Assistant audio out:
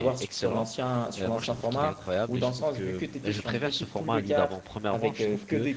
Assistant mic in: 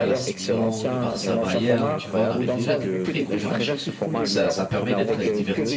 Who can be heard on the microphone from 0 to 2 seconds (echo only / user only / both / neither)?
both